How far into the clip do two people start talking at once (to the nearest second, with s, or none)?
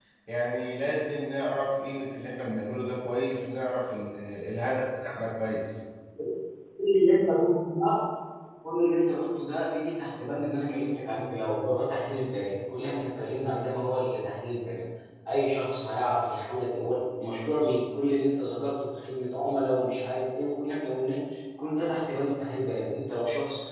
none